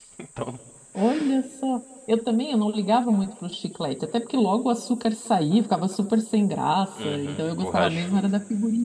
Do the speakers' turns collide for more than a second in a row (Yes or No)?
Yes